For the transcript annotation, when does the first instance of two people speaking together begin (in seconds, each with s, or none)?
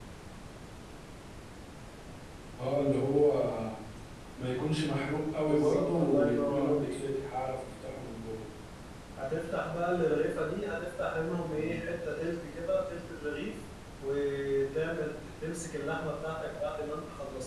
5.4 s